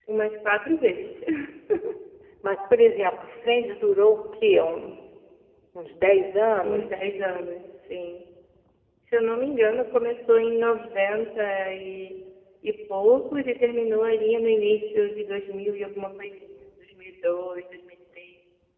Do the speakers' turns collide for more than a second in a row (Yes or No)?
No